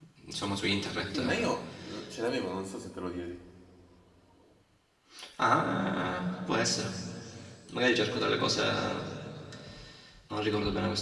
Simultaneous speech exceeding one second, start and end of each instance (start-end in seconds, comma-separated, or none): none